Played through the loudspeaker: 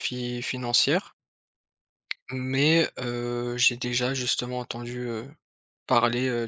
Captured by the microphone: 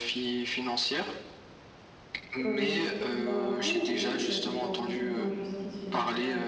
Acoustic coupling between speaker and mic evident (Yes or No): Yes